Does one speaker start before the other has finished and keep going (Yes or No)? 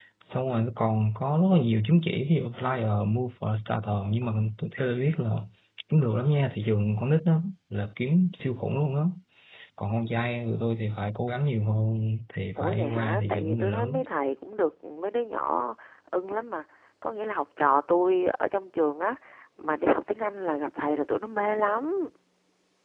Yes